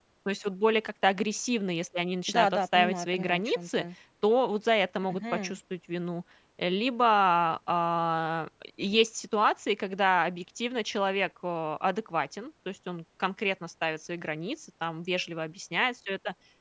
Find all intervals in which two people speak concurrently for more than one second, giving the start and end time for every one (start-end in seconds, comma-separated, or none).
2.3-3.8